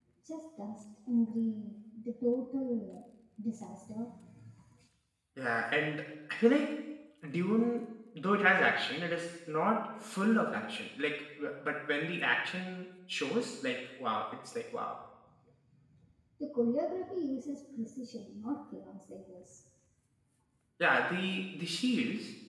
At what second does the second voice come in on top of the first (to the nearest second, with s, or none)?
none